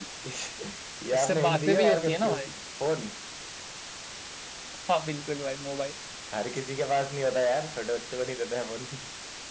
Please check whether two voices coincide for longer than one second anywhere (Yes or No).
Yes